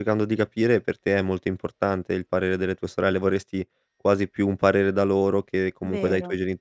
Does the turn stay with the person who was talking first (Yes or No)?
Yes